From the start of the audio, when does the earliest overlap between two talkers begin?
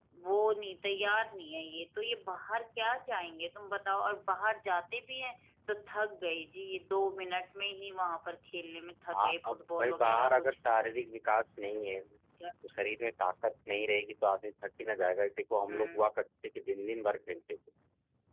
9.1 s

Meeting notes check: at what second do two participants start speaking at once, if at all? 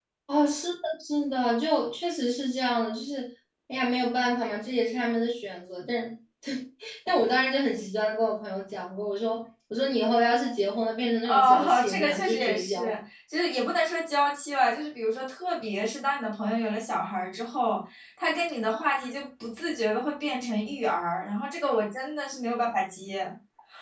11.2 s

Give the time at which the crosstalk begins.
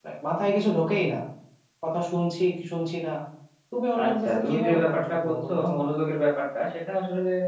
4.0 s

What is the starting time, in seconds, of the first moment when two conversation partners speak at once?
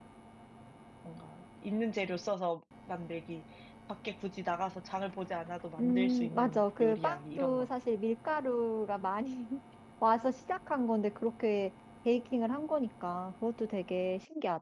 5.8 s

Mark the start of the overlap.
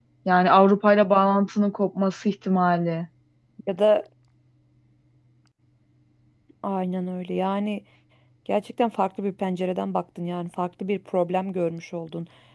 none

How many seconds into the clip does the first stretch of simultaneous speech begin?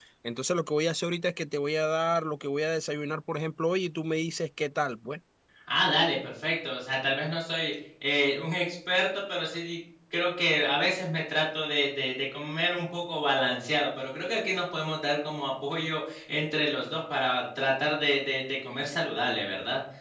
none

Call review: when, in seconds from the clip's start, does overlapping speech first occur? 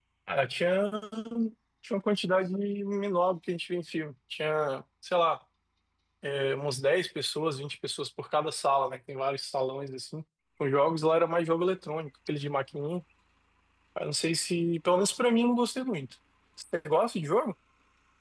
none

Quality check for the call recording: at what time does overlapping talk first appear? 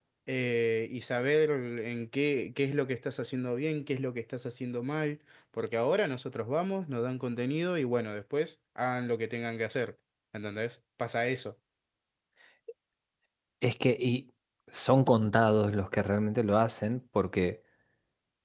none

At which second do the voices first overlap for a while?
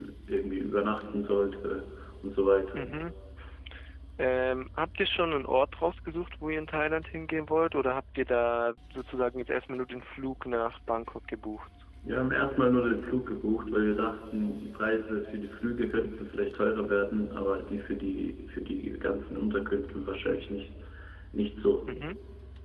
none

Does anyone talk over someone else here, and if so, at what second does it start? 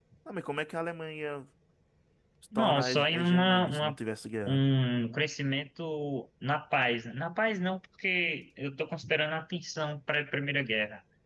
2.5 s

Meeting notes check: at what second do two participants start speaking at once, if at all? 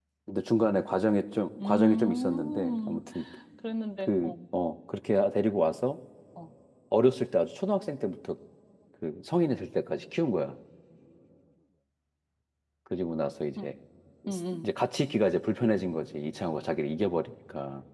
1.6 s

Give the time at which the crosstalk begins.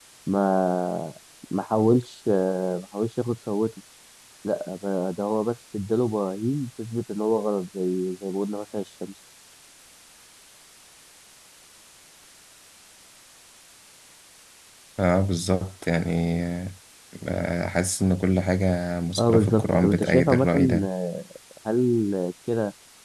19.2 s

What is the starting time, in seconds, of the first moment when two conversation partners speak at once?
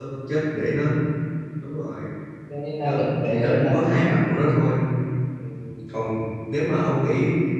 2.8 s

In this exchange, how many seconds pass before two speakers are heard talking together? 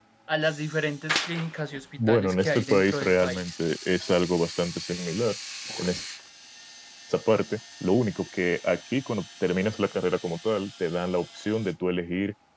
2.0 s

